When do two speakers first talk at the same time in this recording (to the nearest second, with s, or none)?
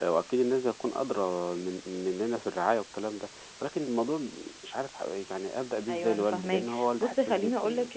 6 s